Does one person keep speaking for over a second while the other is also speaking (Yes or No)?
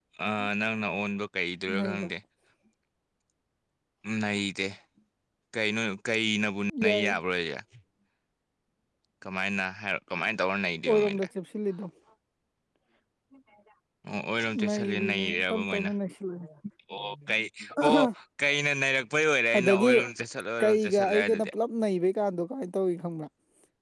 Yes